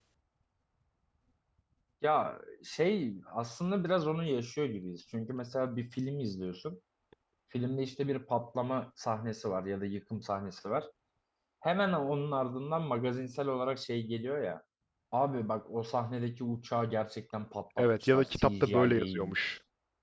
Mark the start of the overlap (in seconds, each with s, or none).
17.8 s